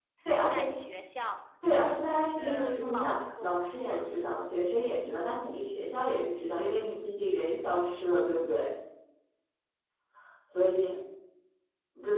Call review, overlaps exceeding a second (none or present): present